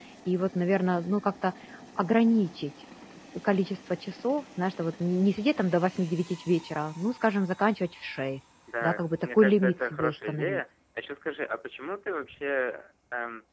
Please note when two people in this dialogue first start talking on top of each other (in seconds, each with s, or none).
8.7 s